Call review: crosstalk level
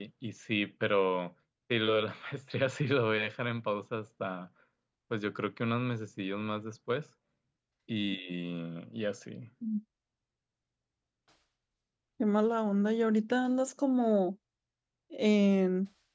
none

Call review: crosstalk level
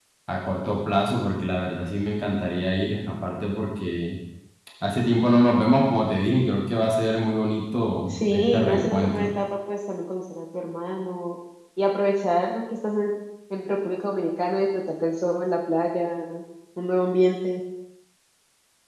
present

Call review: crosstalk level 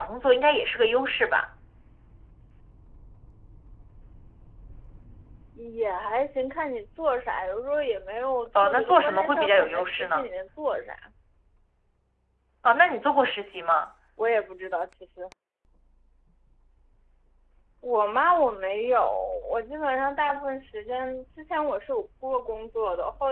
present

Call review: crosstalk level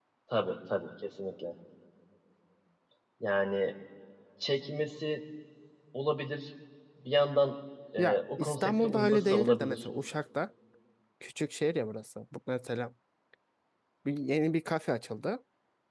present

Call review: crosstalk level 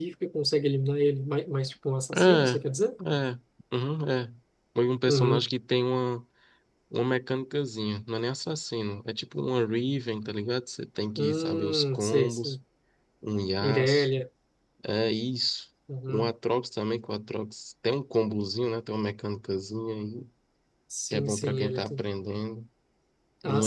present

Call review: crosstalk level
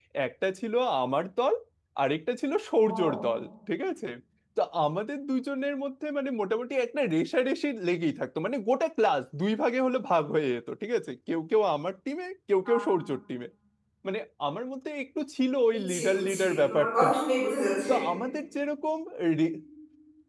present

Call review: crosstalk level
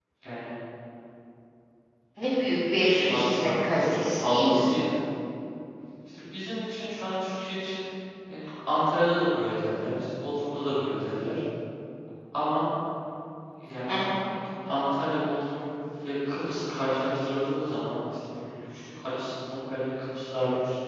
present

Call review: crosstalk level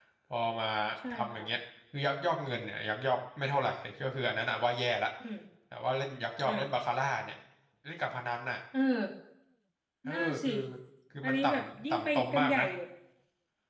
present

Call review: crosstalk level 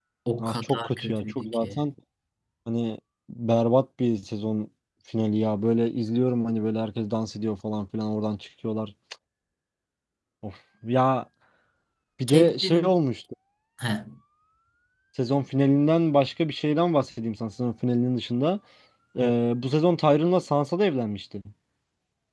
present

